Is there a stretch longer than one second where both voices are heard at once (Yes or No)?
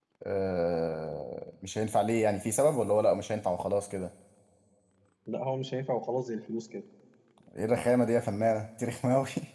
No